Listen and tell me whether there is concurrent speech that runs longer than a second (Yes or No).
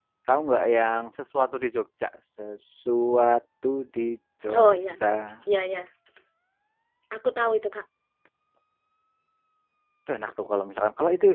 No